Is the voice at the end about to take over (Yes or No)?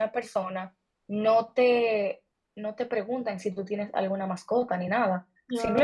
No